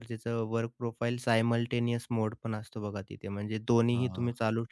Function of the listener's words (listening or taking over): listening